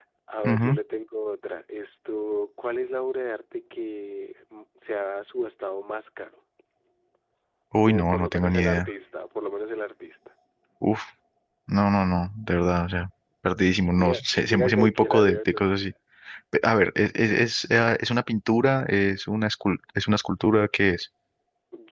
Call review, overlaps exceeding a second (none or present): present